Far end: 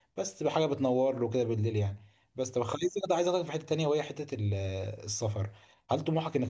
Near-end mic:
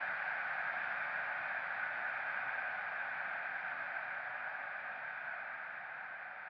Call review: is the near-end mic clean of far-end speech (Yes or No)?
Yes